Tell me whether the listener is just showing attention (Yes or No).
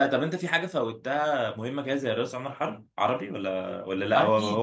No